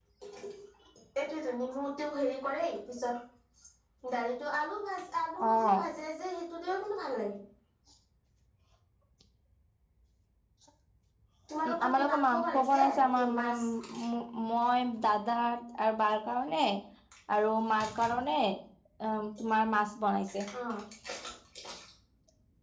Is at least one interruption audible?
Yes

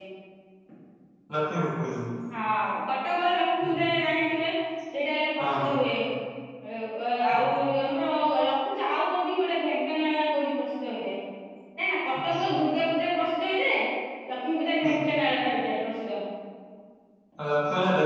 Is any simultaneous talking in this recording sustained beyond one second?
No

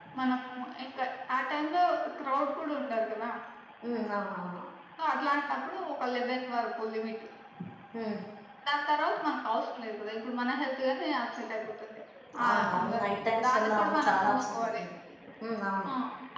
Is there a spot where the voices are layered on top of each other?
Yes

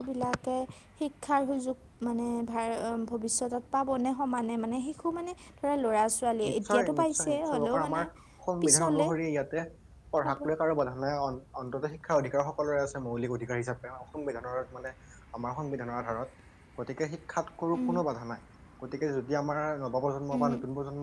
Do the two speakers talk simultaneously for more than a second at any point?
Yes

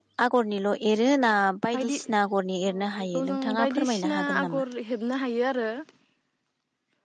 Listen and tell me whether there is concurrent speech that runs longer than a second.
Yes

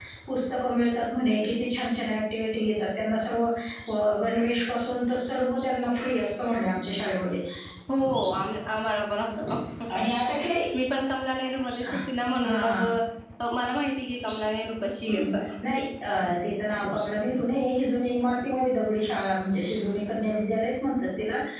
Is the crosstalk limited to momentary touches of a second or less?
Yes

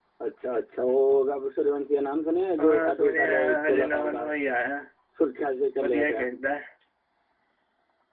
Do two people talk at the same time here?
Yes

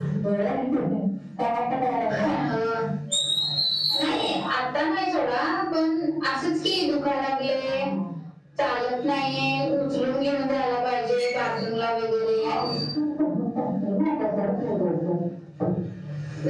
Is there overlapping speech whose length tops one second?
No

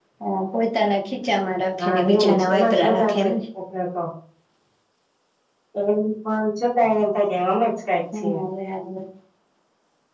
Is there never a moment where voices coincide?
No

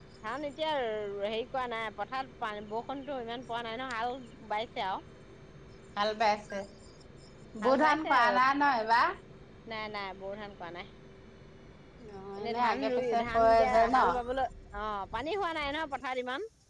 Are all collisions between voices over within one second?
No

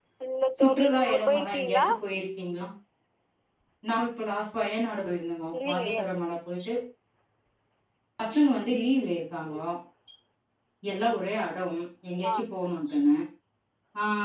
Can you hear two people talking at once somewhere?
Yes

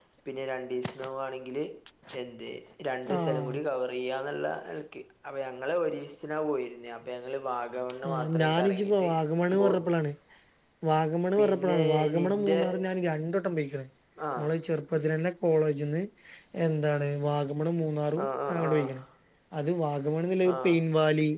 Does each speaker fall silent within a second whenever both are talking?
No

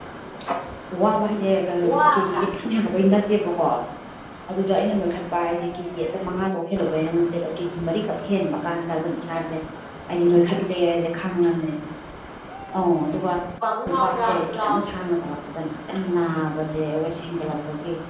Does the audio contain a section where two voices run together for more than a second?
Yes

